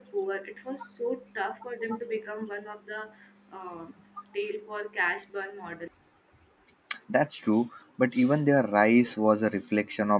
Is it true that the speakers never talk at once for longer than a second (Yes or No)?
Yes